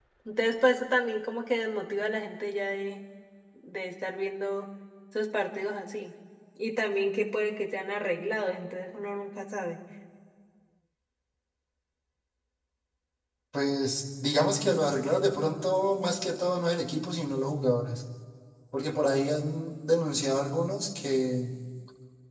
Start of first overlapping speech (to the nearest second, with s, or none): none